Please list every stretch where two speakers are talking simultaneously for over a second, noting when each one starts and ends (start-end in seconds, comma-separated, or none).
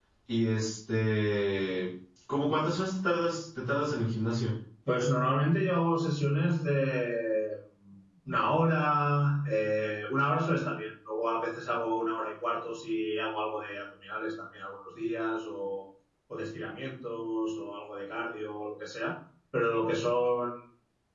none